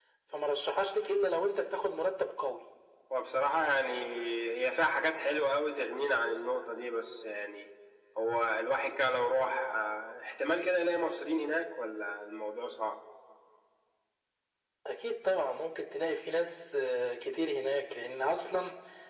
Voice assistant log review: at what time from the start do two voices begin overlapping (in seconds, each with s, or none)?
none